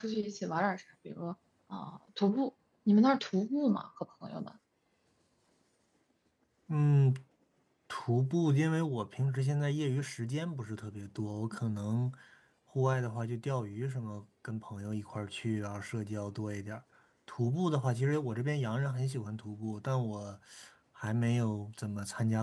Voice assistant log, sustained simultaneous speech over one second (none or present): none